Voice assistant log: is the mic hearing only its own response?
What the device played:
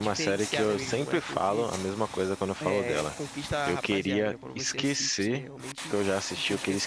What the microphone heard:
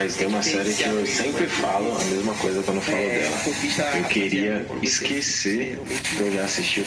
Yes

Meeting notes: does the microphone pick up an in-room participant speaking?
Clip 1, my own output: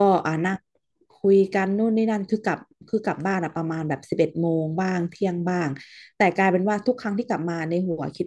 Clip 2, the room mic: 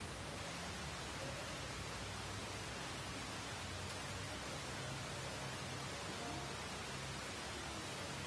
No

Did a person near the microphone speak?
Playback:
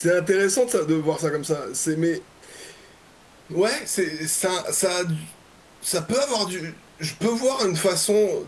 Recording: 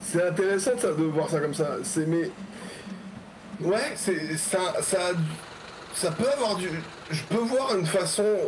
No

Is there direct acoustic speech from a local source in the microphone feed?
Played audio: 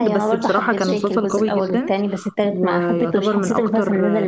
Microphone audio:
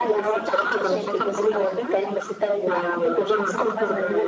No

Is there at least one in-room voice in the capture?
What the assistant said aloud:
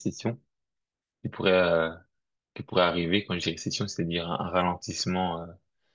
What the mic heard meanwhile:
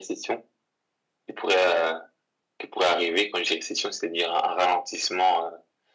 No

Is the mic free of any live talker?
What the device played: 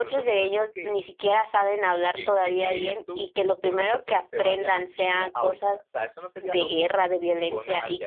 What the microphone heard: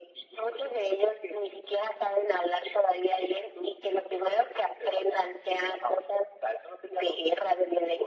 Yes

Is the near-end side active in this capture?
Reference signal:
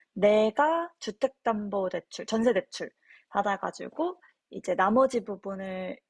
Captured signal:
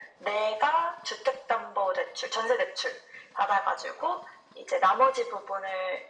No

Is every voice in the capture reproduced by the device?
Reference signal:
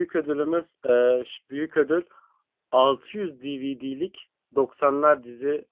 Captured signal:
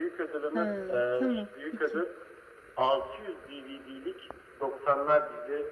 No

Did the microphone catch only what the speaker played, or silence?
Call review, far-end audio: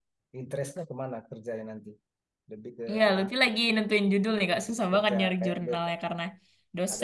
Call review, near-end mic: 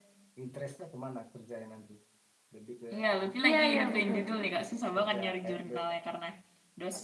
No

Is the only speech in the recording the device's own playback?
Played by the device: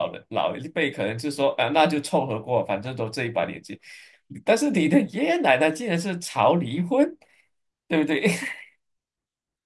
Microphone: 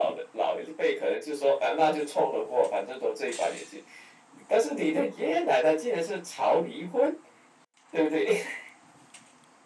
Yes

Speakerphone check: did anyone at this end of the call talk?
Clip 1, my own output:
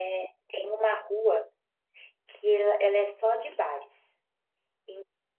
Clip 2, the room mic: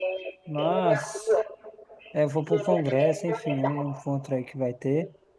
Yes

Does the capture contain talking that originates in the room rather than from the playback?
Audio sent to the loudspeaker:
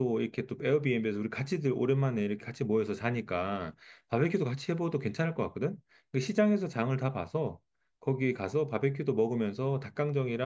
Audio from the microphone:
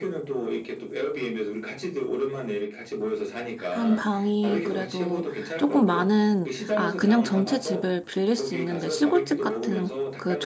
Yes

